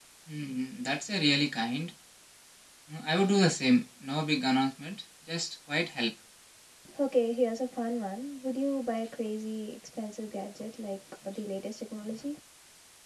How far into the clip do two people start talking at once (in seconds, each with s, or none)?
none